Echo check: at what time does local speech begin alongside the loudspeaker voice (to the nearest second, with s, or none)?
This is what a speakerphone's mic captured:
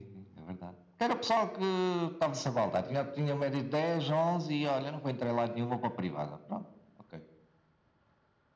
none